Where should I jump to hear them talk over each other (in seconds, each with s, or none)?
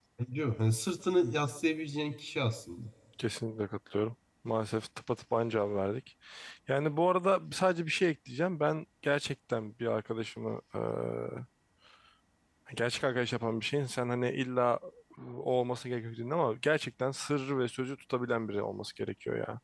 none